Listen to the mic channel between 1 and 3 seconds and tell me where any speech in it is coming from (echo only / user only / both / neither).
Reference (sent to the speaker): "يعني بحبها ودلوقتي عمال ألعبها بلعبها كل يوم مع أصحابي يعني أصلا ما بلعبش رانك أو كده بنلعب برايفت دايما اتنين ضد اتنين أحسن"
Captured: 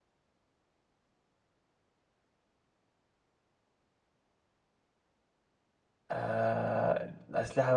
neither